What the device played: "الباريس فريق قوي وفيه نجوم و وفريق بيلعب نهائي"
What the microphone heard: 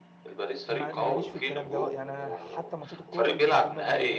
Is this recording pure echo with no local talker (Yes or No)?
No